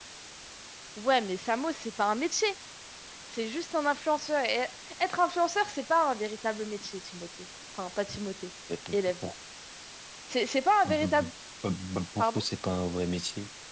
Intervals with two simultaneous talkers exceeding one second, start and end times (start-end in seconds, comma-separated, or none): none